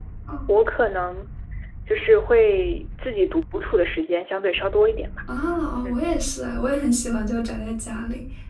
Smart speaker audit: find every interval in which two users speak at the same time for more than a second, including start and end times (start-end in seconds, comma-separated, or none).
none